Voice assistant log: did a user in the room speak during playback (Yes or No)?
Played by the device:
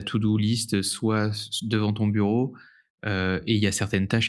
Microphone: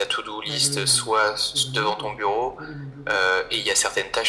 Yes